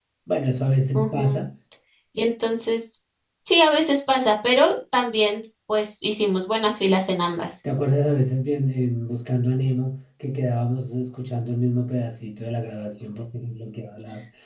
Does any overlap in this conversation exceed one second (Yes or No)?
No